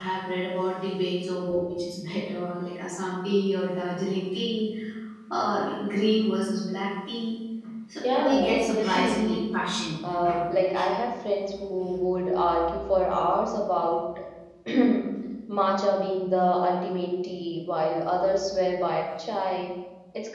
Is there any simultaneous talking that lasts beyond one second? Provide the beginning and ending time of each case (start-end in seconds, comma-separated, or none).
8.1-9.4